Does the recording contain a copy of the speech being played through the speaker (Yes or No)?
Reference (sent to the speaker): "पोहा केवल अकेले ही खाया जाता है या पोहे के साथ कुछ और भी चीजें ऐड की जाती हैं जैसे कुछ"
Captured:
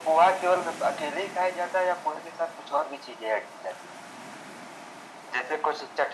Yes